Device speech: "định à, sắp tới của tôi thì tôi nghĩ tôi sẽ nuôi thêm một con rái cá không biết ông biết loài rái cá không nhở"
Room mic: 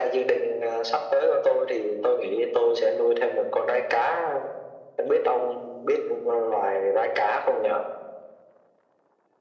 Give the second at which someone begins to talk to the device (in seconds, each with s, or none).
none